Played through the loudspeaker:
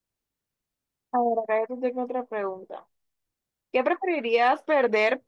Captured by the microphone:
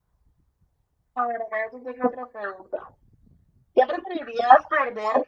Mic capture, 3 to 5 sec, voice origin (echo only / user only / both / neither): echo only